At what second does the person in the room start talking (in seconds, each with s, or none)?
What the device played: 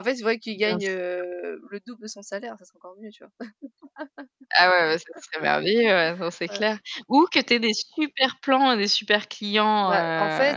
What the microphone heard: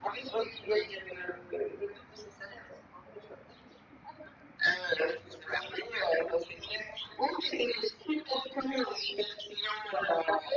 none